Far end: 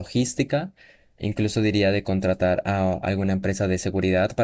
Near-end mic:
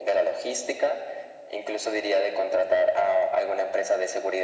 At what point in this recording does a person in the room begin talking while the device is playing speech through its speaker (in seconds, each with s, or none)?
none